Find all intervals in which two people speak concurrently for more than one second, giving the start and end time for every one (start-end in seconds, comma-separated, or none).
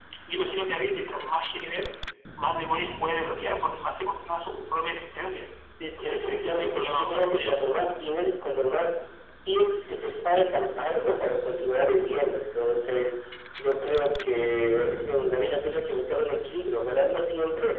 6.0-7.6